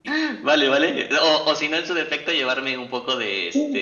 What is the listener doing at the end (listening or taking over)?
taking over